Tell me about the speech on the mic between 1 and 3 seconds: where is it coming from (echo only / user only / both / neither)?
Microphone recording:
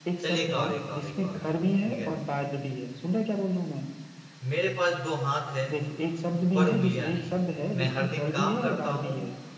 both